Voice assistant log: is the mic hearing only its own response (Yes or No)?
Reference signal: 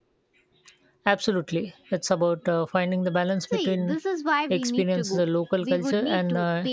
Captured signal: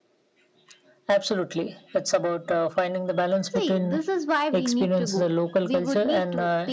Yes